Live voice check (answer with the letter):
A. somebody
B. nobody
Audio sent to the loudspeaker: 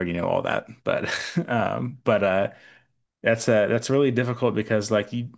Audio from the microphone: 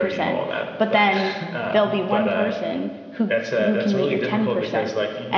A